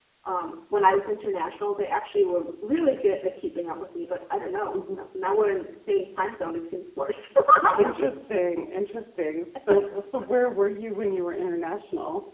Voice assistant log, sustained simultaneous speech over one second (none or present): none